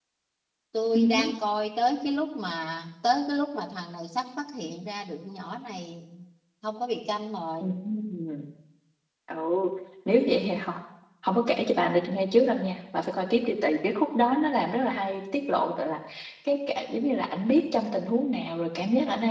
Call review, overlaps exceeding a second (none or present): none